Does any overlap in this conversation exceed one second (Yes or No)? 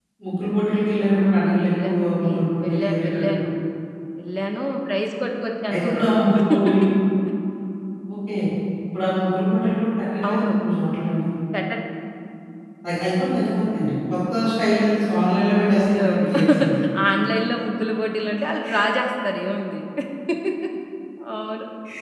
Yes